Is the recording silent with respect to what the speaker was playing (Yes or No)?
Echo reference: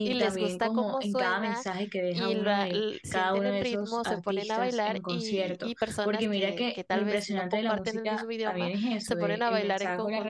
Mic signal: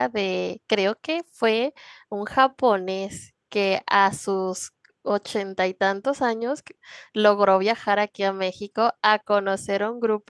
Yes